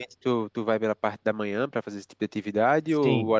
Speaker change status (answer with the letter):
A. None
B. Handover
B